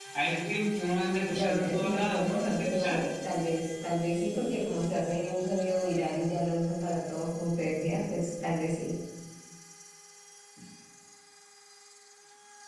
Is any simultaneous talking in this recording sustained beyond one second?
Yes, from 1.3 s

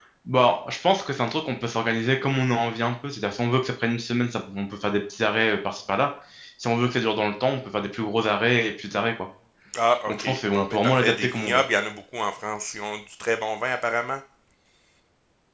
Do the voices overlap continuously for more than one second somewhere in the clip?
Yes, from 10.1 s

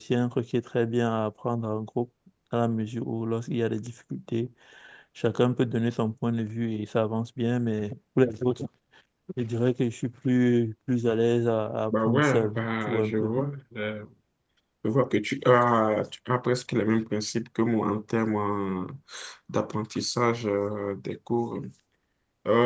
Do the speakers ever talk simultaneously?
Yes, from 11.9 s

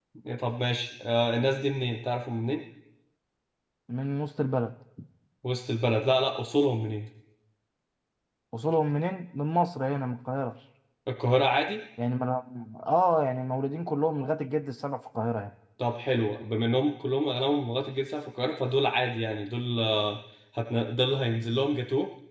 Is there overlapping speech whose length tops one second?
No

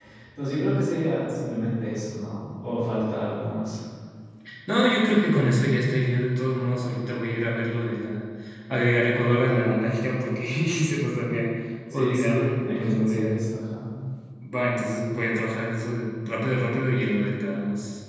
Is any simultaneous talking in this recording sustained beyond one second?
Yes, from 11.9 s

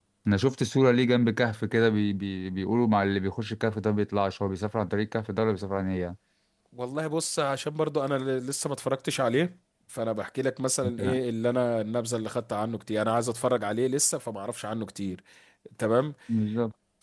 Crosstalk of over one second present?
No

